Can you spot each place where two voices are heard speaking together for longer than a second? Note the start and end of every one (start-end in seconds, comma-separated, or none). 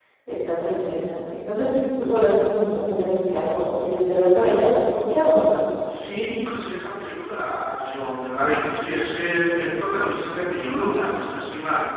none